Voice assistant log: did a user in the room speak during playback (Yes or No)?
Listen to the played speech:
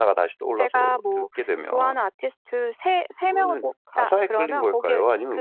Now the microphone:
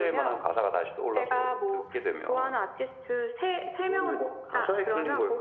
No